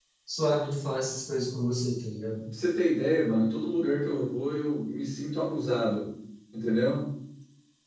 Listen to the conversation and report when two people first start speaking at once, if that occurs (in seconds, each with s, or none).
none